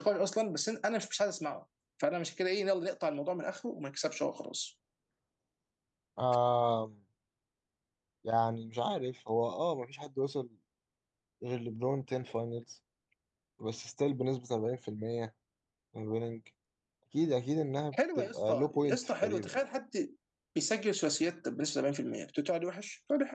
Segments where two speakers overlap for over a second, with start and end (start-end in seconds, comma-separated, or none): 17.9-19.6